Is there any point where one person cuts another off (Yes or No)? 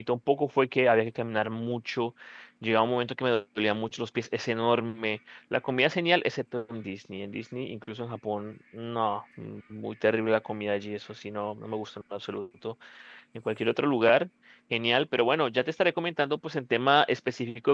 No